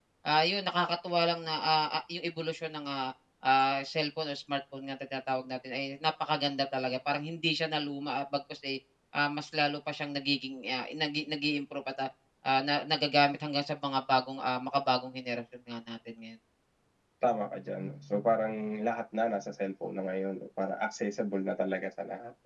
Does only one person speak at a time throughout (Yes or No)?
Yes